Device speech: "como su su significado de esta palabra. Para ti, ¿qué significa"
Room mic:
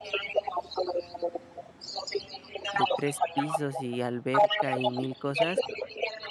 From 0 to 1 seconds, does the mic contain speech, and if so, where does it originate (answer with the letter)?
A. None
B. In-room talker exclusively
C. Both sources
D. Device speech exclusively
D